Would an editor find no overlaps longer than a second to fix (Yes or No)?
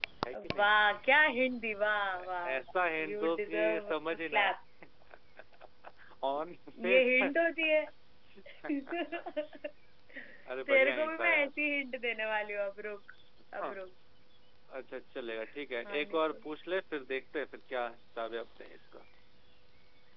No